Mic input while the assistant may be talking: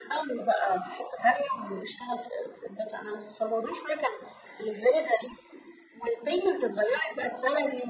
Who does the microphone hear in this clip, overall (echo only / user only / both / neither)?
echo only